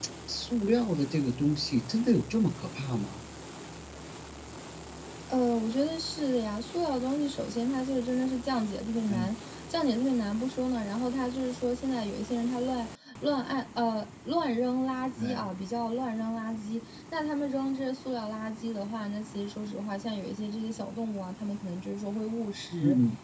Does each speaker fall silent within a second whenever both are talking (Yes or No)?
Yes